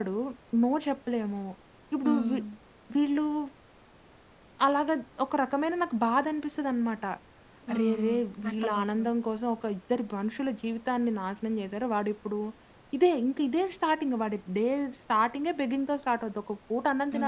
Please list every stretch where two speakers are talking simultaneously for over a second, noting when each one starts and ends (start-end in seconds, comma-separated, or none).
7.7-9.1